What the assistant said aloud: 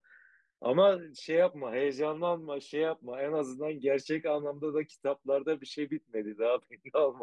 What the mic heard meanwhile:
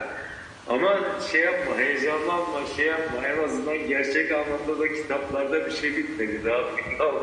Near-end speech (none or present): none